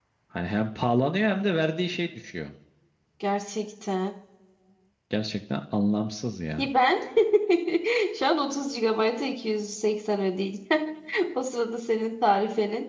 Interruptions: none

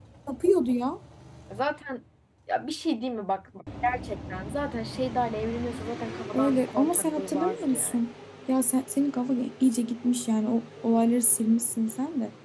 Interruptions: present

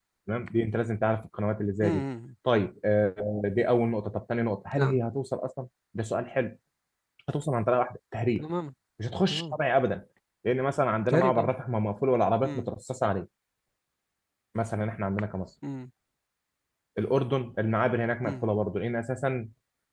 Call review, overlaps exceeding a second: none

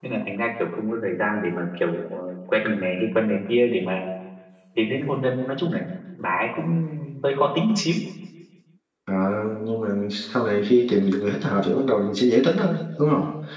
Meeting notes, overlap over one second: none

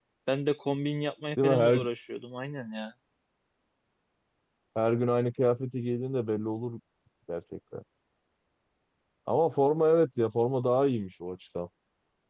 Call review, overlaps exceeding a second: none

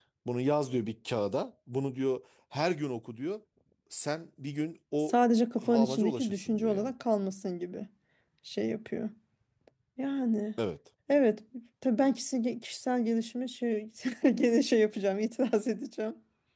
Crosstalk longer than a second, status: present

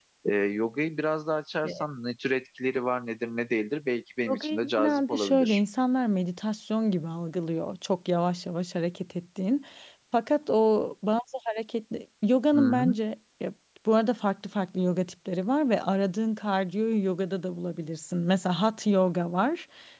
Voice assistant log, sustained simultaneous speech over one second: present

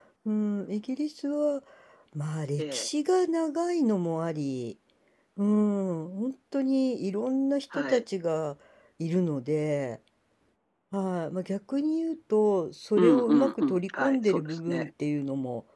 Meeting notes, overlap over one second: present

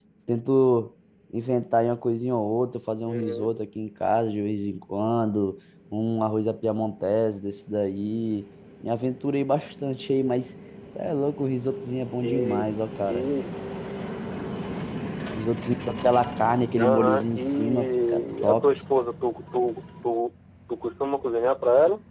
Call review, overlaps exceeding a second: present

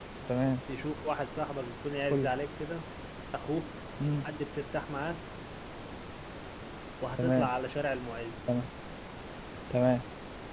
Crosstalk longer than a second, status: none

